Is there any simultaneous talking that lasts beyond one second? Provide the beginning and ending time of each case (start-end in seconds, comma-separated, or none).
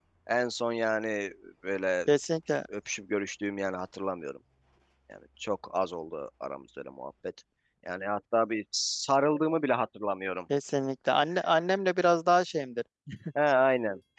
none